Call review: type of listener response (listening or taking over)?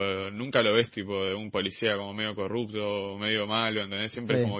taking over